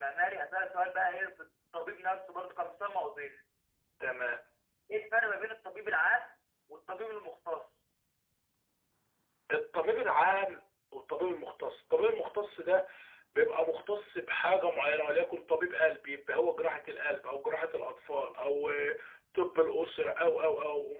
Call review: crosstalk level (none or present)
none